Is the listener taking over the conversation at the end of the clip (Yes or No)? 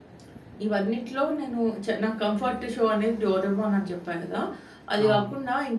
No